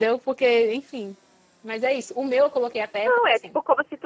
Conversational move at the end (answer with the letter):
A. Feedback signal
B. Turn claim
B